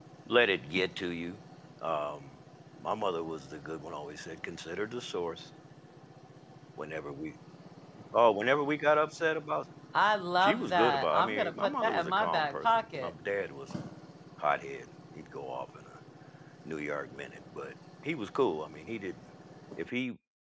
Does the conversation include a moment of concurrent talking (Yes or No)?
Yes